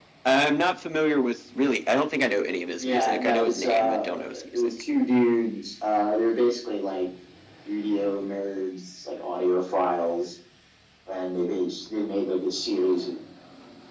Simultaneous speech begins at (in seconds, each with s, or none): 2.8 s